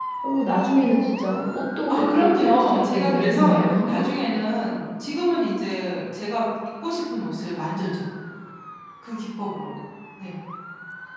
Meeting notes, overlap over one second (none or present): present